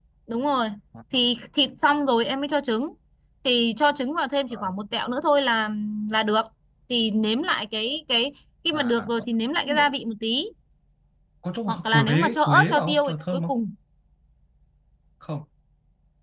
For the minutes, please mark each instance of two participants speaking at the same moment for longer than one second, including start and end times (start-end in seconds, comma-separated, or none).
11.7-13.5